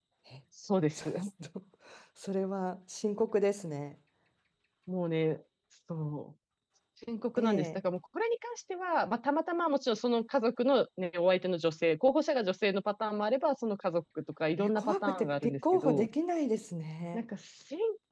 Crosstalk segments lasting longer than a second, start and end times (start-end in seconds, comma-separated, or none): 14.6-16.1